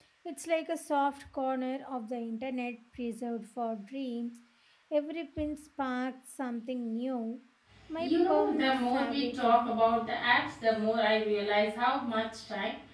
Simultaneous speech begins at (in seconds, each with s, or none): 8.0 s